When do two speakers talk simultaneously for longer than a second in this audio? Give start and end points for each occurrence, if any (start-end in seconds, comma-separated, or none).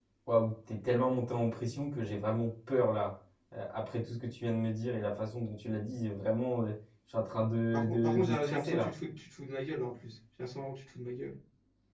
7.7-8.9